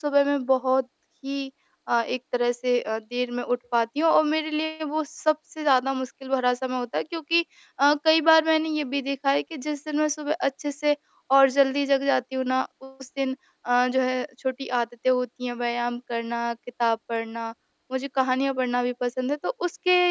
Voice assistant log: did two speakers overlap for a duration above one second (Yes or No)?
No